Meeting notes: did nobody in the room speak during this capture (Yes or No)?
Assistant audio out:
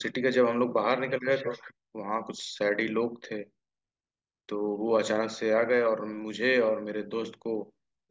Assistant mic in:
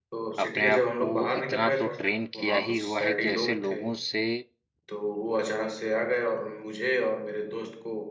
No